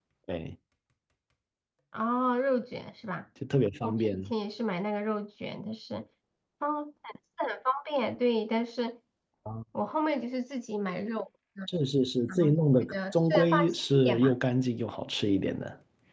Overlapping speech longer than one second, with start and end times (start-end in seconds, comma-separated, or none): 12.3-14.3